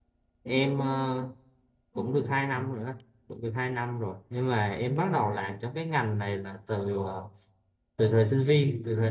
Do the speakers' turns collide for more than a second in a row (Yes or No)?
No